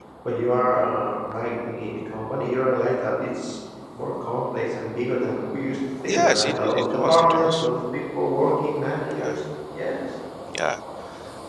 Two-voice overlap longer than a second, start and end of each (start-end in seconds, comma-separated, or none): 6.1-7.7